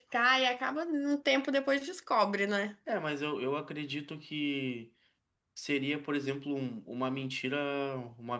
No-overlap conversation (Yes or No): Yes